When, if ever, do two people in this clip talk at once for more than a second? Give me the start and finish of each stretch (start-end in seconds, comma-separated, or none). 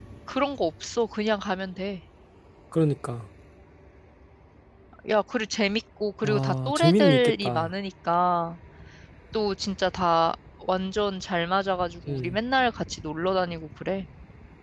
6.2-7.7